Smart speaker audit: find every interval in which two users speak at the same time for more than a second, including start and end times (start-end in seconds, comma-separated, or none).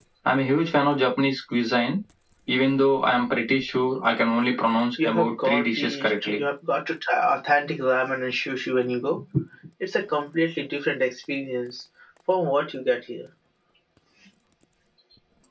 5.0-6.4